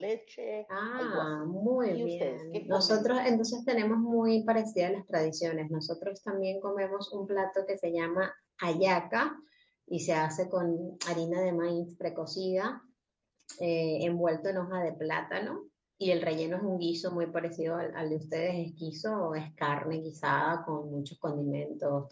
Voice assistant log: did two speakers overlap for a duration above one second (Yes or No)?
Yes